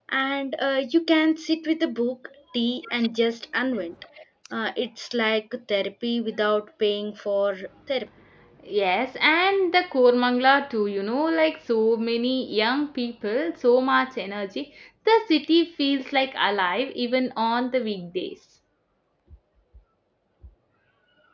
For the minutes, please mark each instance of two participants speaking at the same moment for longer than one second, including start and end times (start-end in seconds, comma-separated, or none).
none